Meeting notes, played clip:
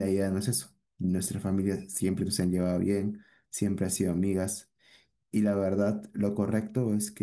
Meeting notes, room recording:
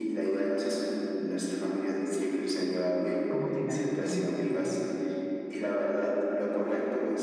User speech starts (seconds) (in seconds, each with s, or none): 3.3 s